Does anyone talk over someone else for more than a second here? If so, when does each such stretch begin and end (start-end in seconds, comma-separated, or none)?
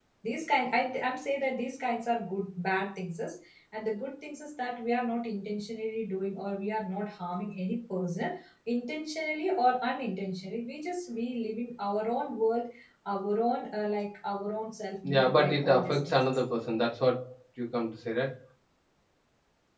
15.0-16.4